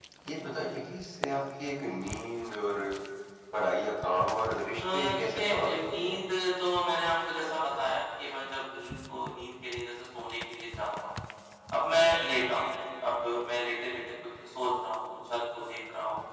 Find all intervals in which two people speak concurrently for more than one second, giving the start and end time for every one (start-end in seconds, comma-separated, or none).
4.8-6.2